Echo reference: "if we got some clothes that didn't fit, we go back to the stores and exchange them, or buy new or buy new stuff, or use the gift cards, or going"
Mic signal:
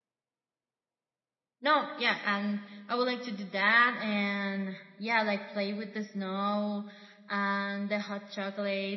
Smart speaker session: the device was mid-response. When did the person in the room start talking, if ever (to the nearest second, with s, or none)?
2 s